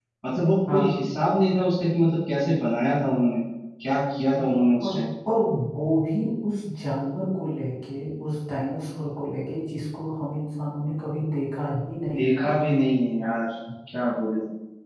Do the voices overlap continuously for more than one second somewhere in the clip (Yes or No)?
No